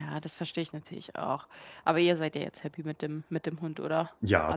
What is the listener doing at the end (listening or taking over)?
taking over